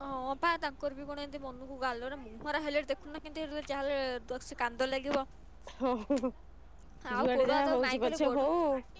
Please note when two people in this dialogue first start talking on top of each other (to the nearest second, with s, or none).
7 s